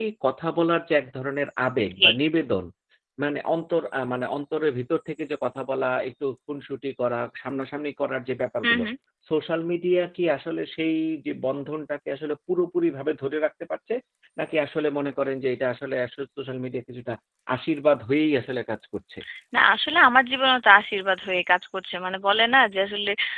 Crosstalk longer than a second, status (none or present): none